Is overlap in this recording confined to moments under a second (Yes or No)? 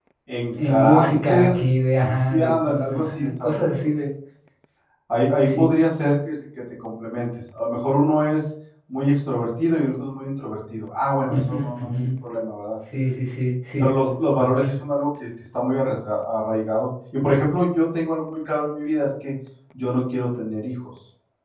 No